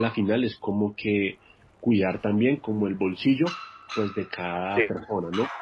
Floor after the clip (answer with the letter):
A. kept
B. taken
A